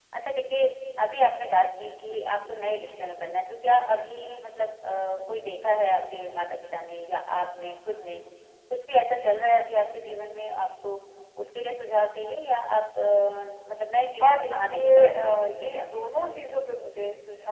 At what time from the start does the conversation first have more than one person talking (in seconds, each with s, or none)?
14.2 s